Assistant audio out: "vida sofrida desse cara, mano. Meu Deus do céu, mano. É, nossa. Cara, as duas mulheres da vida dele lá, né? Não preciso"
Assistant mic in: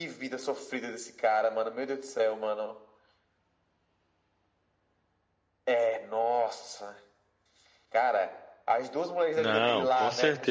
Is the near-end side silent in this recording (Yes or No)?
No